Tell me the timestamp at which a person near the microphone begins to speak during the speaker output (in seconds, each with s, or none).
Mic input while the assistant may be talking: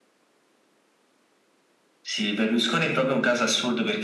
none